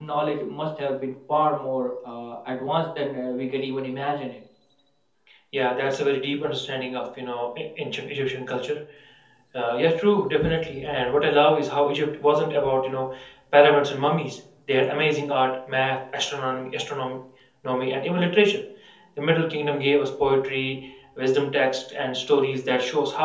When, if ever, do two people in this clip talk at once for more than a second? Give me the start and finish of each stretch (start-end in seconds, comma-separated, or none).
none